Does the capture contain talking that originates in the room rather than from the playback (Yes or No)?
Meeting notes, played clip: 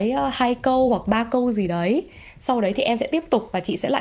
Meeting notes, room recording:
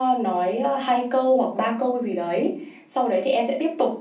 No